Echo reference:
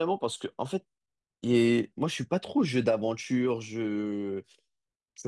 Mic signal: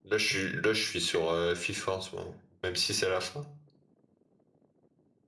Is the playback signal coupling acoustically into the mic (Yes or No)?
No